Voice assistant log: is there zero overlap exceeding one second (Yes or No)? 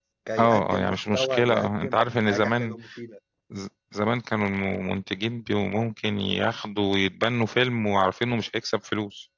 No